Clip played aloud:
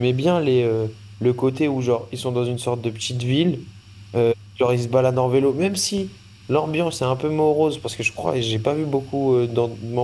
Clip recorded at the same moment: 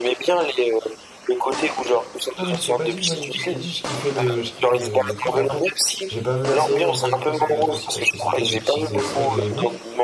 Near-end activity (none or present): present